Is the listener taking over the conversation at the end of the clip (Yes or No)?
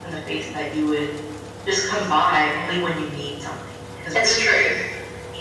No